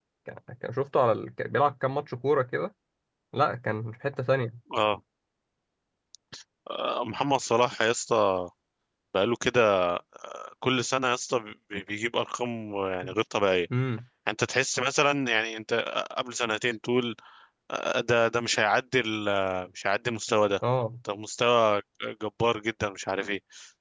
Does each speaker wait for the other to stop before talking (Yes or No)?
Yes